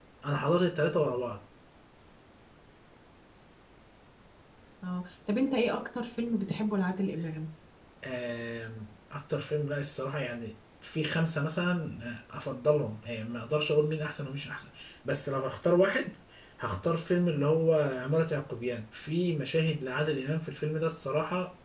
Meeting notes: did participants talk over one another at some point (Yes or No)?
No